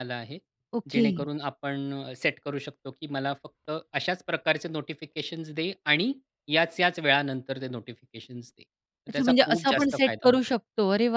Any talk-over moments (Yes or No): Yes